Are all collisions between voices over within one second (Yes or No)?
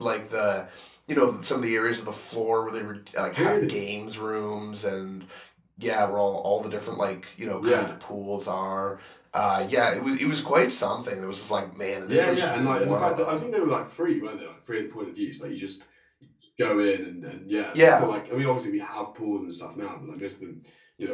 No